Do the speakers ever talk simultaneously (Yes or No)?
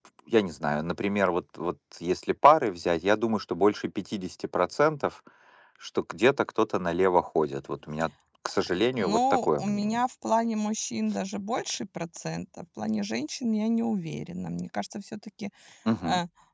Yes